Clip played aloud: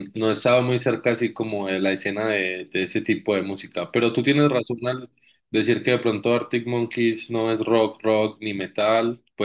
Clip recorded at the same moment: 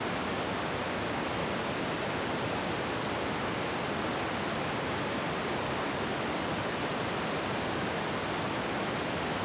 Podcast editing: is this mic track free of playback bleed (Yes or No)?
Yes